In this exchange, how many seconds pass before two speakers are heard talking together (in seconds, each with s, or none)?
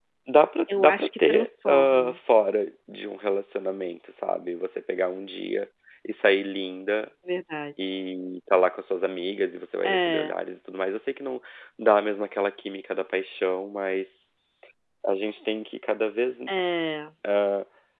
0.8 s